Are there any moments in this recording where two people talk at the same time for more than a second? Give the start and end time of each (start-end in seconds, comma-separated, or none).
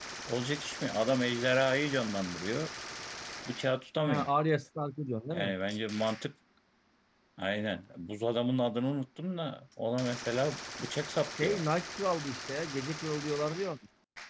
none